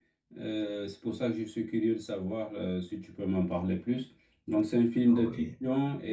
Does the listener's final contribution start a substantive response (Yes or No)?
No